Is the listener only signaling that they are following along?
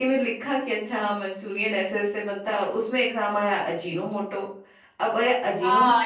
No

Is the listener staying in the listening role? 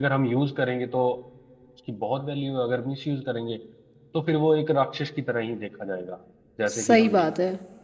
No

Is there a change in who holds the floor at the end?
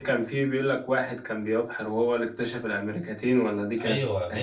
Yes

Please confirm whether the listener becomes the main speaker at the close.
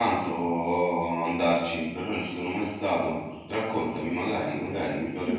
Yes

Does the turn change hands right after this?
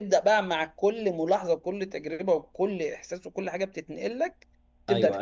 Yes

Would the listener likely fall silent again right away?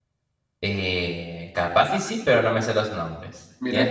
No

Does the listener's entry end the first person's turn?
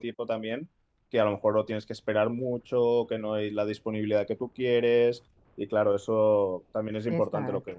No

